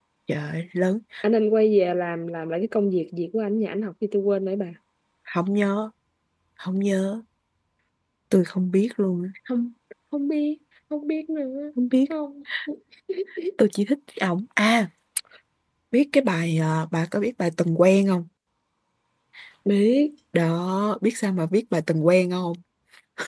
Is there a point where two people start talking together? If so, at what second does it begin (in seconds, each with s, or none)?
none